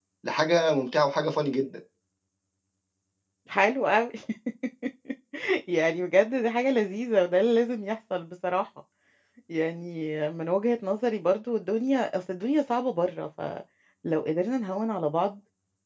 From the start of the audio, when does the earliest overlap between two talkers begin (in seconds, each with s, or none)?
none